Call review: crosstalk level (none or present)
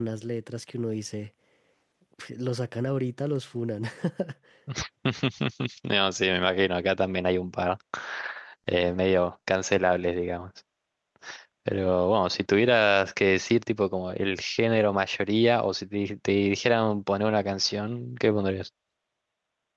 none